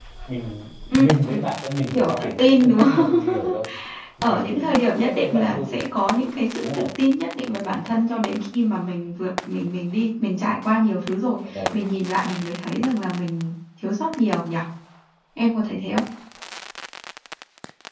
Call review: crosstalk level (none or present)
present